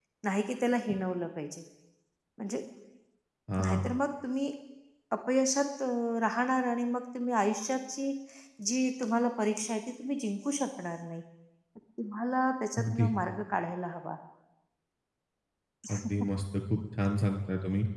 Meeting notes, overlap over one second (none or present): none